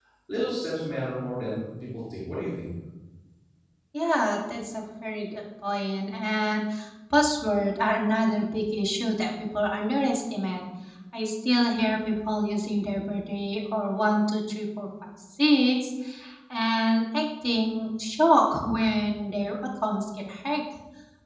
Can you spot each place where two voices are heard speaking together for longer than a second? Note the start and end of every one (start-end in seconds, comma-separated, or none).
none